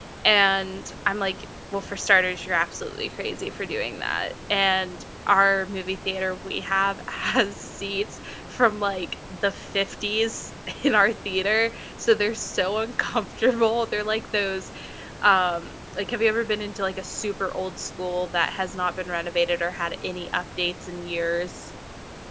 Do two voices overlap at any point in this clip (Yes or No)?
No